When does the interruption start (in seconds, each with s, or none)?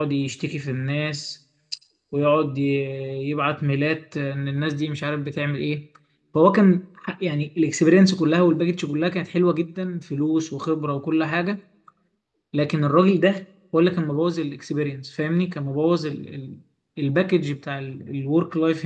none